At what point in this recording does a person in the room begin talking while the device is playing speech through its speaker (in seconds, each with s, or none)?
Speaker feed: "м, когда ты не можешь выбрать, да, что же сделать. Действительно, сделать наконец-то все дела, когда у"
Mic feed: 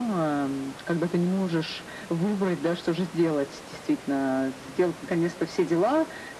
none